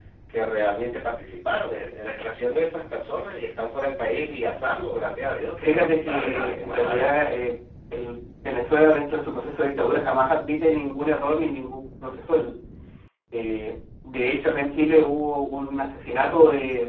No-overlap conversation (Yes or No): No